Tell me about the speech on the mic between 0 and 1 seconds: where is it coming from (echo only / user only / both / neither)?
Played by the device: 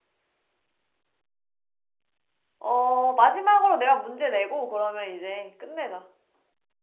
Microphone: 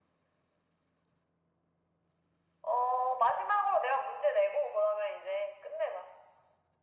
neither